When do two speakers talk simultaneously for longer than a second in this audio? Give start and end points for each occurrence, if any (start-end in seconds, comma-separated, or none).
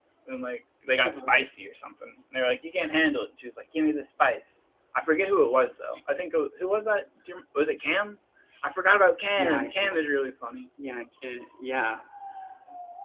none